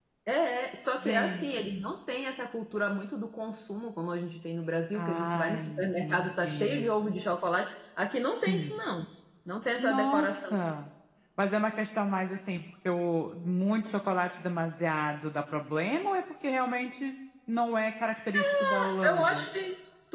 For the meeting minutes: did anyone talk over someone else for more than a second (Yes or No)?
Yes